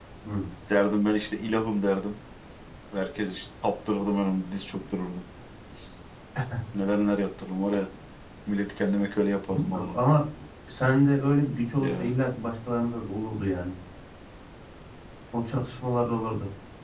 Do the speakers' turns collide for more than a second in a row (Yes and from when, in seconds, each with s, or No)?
No